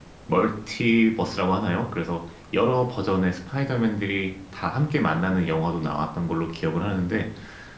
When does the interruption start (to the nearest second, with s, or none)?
none